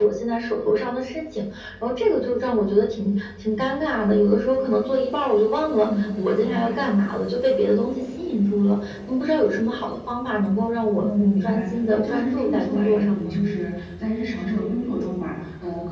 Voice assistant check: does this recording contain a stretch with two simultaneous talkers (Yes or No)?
Yes